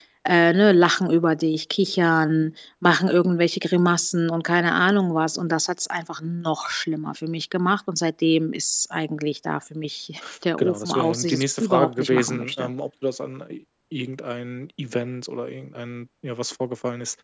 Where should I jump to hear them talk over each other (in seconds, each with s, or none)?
10.6 s